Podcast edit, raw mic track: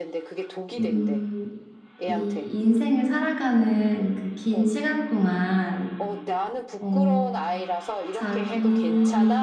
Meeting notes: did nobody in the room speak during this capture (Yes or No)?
No